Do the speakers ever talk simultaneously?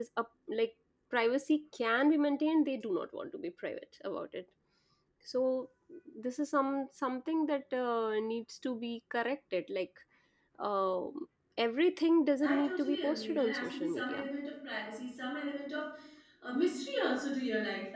Yes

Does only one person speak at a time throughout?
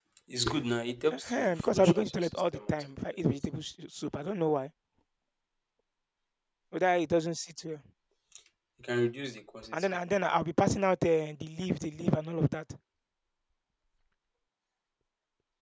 No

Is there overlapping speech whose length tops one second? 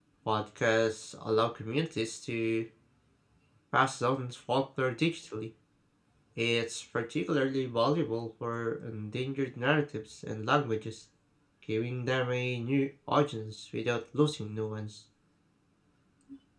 No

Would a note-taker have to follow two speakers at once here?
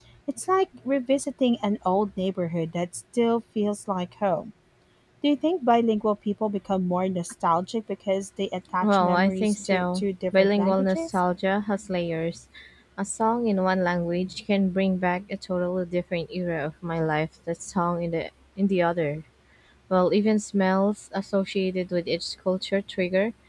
Yes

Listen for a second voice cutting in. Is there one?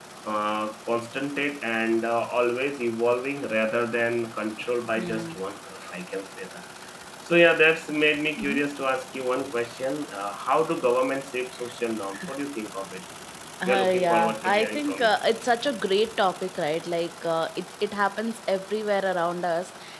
Yes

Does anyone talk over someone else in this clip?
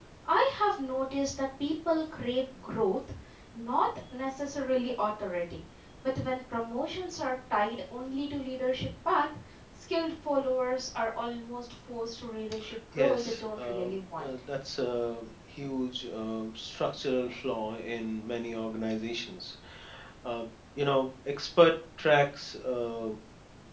Yes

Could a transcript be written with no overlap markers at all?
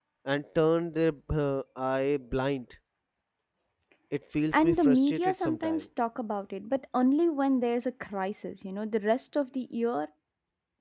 No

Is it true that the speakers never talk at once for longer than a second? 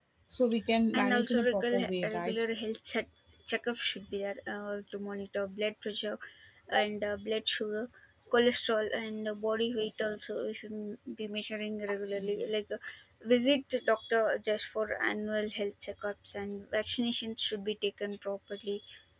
No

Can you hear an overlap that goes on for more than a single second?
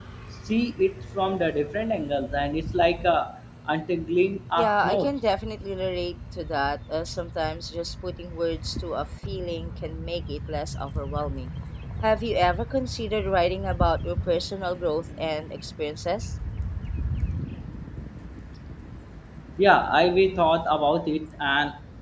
No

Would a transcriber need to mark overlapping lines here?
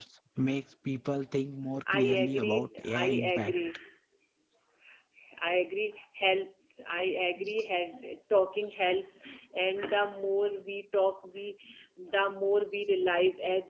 Yes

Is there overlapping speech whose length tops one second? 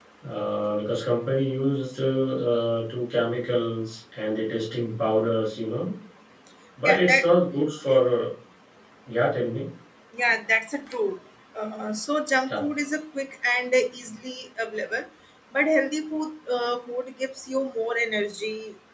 No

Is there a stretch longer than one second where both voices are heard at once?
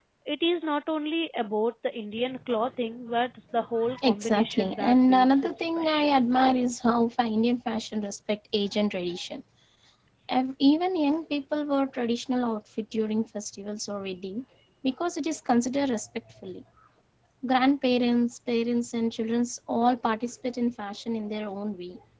Yes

